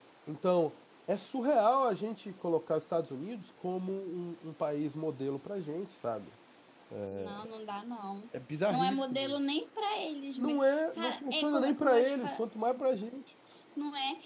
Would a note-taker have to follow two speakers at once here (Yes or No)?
Yes